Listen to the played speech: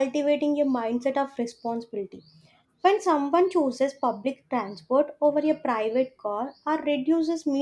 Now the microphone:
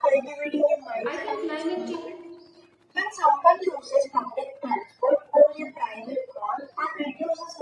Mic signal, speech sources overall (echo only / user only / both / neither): both